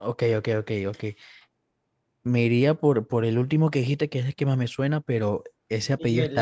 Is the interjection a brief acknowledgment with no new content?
Yes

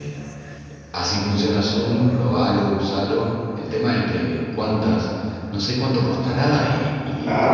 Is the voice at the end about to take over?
Yes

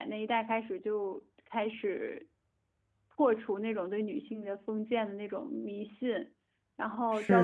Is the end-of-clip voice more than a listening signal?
Yes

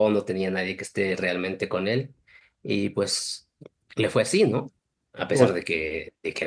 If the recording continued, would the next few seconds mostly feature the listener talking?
No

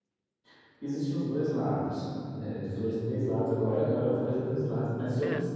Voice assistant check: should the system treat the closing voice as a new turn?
No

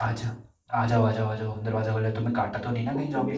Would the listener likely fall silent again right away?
No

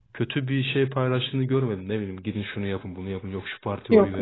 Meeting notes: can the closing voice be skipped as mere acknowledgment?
Yes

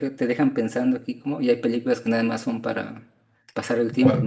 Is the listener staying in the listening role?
No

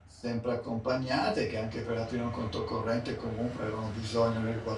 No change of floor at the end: Yes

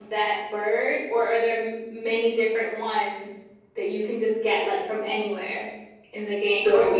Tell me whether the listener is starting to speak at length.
No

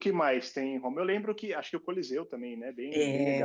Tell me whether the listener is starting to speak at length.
Yes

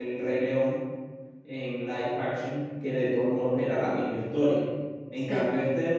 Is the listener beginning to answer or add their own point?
No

